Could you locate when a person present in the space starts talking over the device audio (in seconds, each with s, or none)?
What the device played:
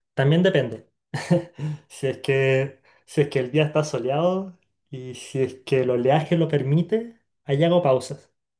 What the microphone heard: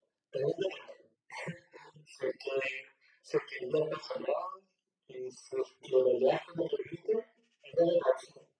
none